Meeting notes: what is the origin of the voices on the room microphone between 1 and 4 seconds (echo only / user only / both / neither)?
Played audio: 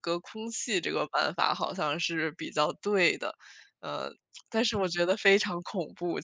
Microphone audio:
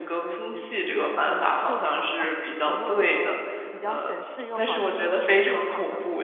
both